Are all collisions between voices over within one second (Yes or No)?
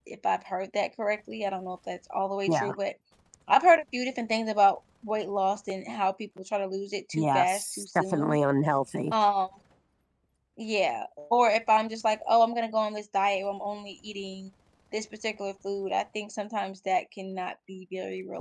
No